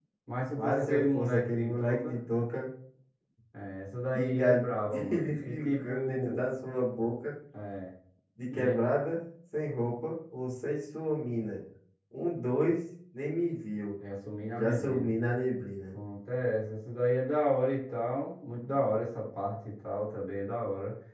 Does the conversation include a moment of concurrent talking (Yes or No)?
Yes